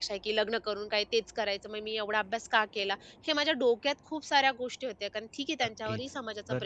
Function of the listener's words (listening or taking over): taking over